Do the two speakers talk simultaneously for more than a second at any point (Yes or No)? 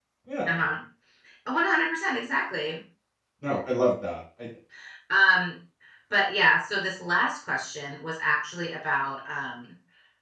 No